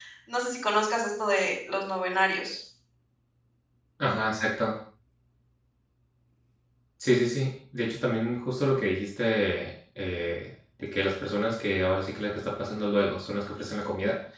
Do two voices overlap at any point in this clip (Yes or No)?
No